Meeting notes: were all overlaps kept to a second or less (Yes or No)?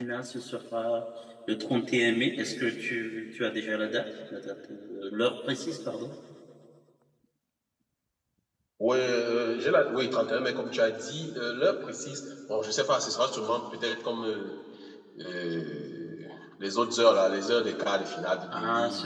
Yes